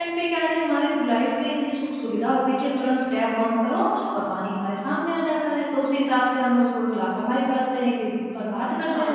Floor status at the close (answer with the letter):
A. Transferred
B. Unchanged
A